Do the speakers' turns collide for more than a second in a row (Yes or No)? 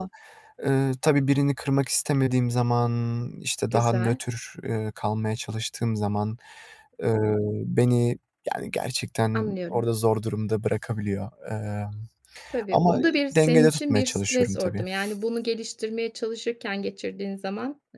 Yes